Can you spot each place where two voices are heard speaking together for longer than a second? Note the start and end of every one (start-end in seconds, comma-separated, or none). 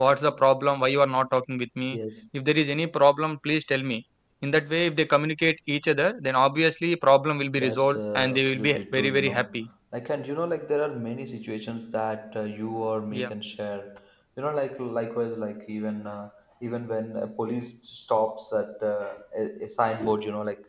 7.6-9.6